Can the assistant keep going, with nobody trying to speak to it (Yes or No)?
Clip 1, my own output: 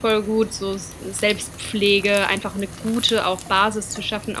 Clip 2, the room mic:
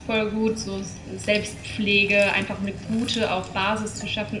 Yes